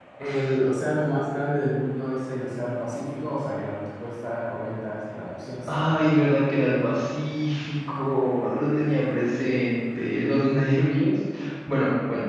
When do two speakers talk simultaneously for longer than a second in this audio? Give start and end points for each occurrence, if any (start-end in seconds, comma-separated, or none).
none